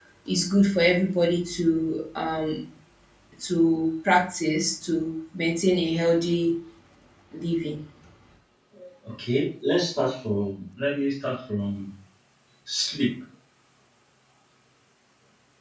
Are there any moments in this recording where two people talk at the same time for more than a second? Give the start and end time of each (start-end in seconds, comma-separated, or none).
none